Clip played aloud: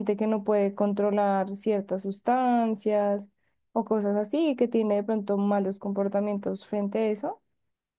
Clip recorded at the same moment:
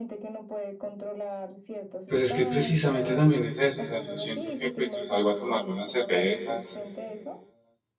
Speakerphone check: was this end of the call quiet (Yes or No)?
No